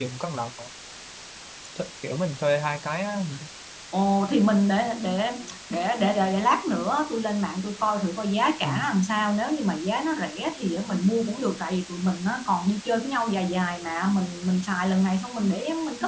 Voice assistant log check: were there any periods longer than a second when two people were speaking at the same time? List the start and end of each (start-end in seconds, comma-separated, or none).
none